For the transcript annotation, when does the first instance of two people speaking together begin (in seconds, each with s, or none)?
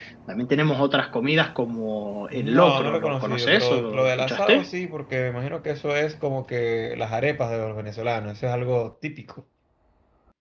2.3 s